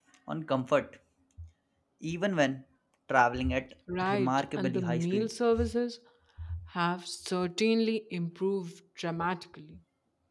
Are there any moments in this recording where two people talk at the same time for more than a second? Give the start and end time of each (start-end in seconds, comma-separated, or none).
4.0-5.3